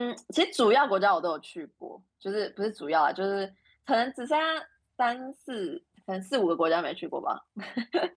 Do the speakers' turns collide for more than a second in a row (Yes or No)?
No